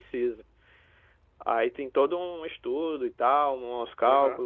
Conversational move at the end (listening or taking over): taking over